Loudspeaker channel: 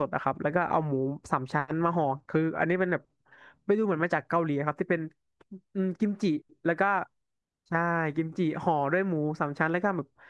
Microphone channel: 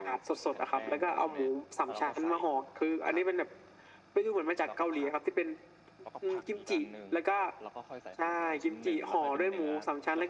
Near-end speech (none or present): present